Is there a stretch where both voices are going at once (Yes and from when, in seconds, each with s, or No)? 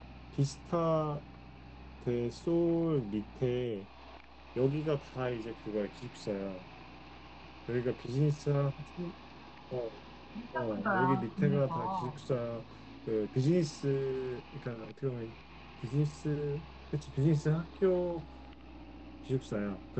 Yes, from 10.6 s